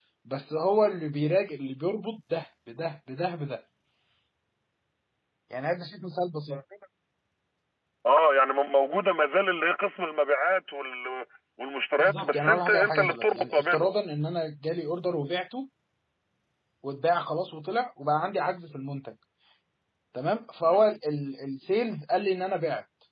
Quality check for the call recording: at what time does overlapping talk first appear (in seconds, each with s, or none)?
12.0 s